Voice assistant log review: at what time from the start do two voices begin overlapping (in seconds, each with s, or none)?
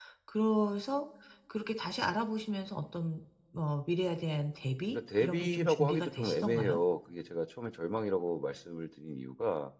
4.9 s